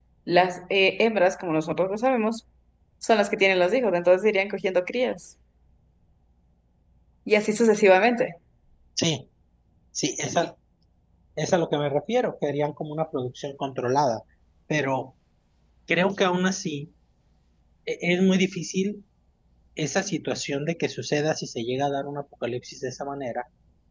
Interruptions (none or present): none